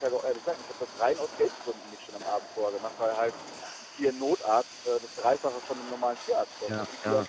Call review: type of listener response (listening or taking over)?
listening